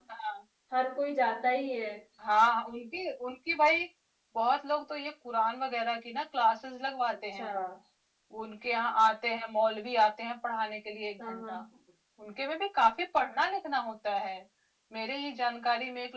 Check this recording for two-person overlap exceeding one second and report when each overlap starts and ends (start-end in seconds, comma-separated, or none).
none